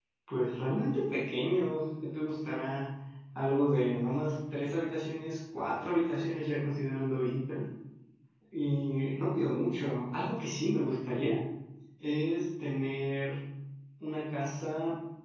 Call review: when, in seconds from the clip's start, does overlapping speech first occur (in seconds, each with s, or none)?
none